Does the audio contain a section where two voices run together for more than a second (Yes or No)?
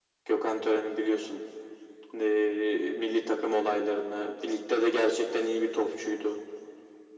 No